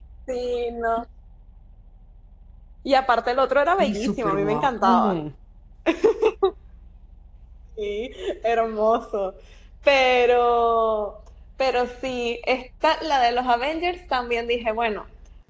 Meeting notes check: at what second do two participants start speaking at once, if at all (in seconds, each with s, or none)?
3.8 s